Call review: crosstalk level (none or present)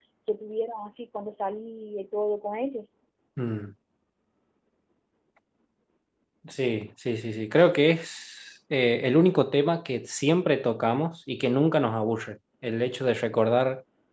none